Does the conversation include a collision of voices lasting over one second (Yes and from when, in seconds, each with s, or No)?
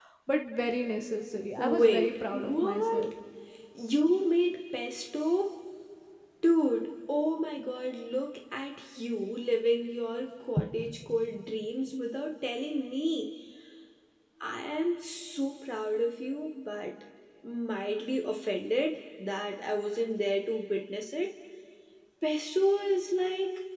Yes, from 1.6 s